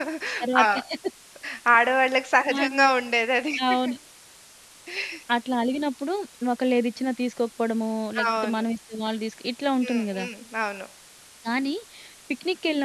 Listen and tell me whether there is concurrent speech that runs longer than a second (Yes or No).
No